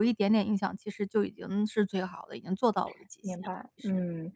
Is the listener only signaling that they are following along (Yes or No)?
No